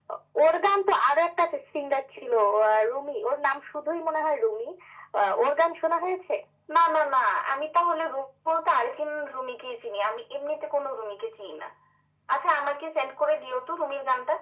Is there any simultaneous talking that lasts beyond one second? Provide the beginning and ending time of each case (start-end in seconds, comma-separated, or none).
none